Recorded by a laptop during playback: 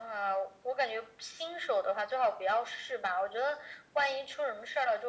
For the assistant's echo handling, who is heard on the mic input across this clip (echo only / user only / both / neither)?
echo only